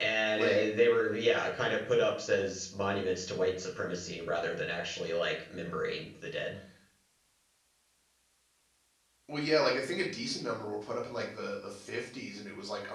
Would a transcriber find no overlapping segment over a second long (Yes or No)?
Yes